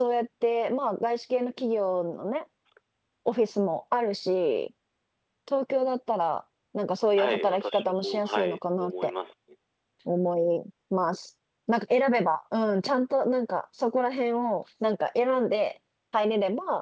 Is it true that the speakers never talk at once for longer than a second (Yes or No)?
No